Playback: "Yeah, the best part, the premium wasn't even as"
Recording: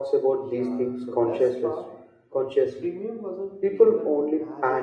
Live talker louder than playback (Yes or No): Yes